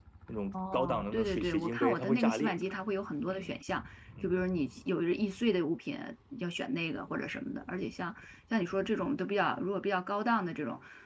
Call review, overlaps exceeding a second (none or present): present